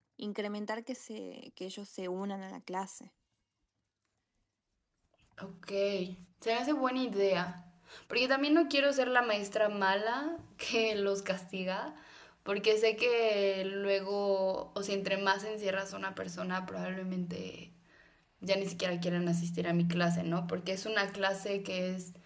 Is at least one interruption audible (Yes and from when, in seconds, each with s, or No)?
No